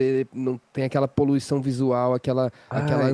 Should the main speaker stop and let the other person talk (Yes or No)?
No